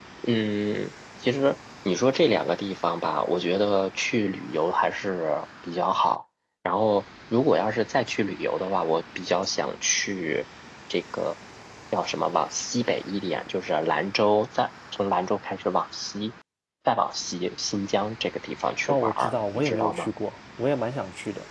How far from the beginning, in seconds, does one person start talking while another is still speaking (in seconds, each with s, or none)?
18.9 s